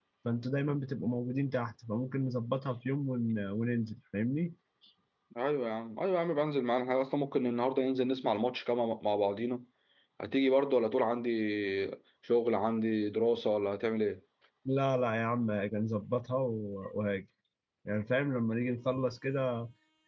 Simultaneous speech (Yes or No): No